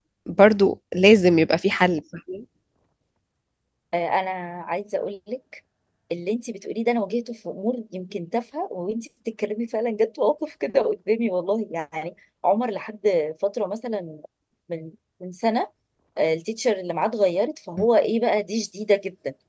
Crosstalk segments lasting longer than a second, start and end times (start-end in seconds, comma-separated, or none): none